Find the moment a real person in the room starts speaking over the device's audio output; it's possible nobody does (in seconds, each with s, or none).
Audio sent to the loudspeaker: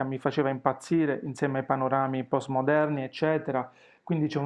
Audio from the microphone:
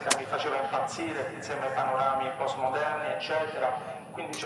none